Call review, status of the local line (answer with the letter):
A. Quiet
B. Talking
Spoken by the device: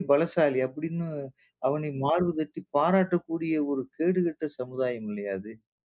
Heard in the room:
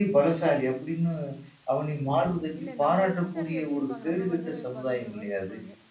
B